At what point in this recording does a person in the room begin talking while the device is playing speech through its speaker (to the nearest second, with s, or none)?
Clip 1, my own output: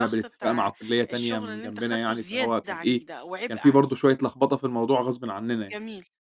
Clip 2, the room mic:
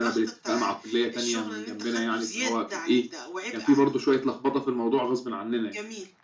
none